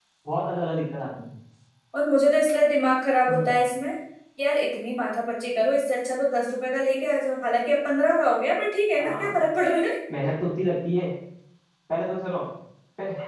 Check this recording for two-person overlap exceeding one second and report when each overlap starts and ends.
none

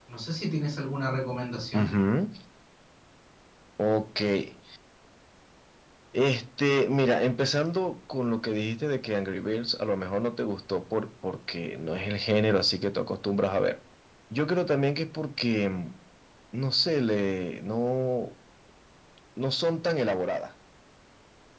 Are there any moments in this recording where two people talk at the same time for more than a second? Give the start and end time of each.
none

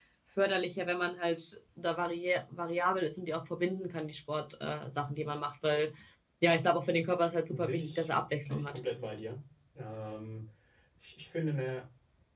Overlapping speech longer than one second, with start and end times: 7.5-8.8

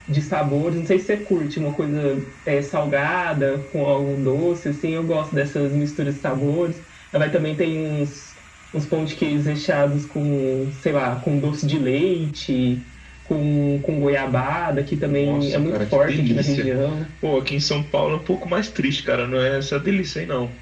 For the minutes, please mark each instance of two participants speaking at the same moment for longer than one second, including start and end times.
15.0-16.7

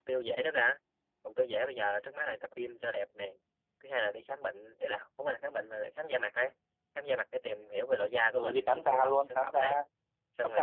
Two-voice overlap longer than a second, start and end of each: 8.4-9.8

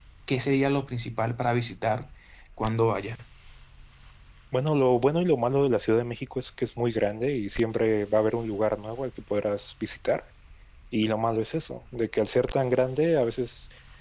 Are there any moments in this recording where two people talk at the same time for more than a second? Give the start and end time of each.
none

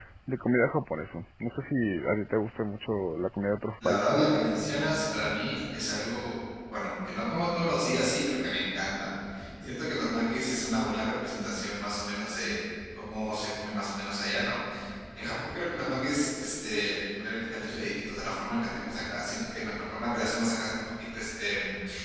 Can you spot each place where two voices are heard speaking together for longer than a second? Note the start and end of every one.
none

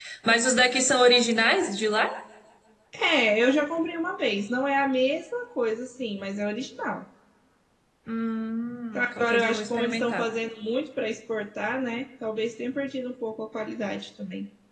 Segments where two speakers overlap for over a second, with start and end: 8.9-10.2

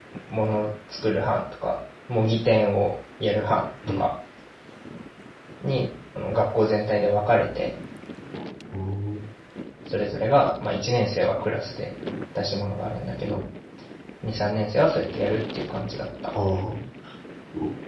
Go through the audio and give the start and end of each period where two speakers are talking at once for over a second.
none

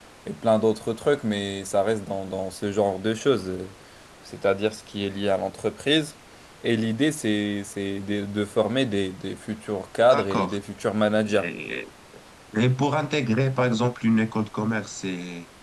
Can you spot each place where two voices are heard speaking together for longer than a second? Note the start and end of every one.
none

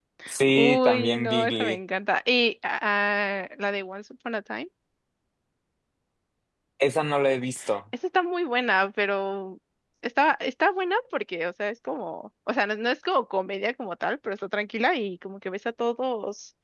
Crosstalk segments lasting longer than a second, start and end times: 0.5-1.8

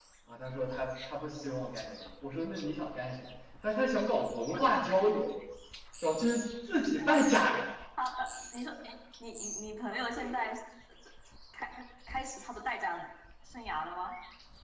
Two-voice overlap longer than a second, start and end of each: none

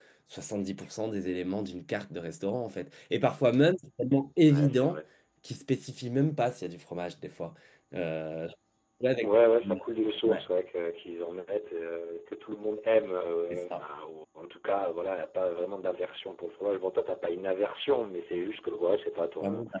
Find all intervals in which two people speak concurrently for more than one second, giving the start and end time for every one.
none

